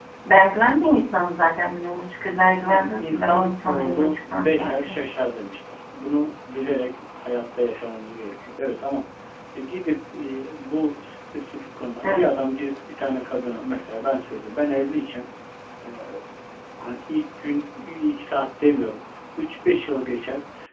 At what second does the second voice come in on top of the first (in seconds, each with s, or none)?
2.4 s